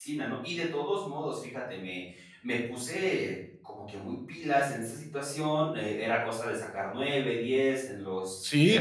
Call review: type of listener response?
taking over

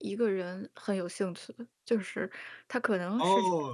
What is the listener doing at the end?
taking over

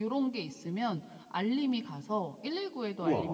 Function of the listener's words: listening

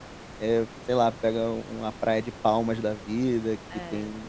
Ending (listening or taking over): listening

